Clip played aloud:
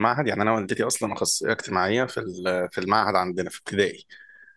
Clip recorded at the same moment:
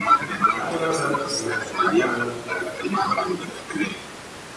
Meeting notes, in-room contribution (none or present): present